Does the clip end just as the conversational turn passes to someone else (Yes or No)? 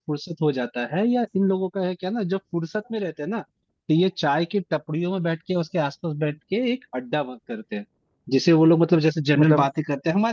No